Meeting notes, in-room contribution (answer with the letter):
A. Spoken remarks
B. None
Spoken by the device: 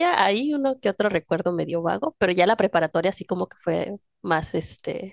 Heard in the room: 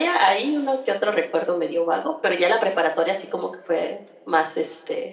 B